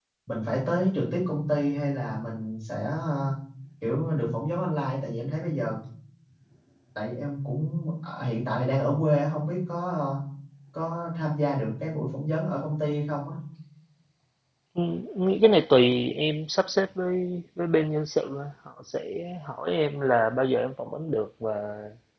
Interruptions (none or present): none